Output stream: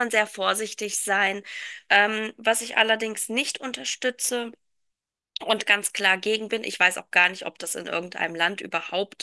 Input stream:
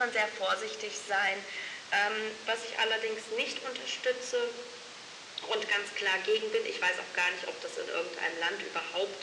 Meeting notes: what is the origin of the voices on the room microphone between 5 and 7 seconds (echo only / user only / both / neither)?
echo only